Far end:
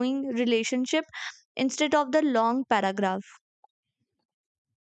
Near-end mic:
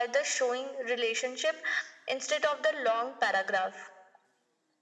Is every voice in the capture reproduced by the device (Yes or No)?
Yes